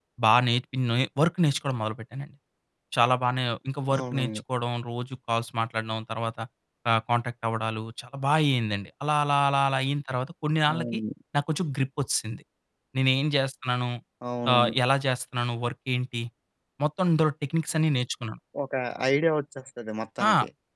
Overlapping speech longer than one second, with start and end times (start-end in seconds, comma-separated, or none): none